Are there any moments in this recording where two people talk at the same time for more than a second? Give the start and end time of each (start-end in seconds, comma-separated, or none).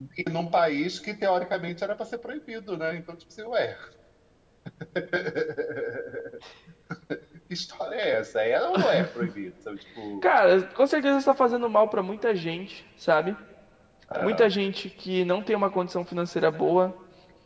none